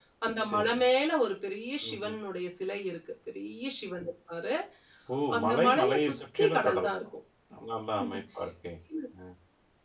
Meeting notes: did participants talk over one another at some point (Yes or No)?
Yes